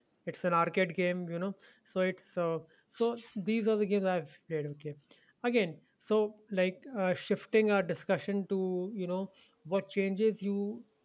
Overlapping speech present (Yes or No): No